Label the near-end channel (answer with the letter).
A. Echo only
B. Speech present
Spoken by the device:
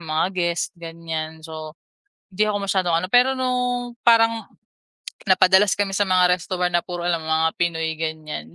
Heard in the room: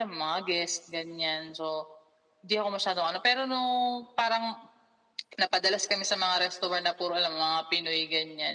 A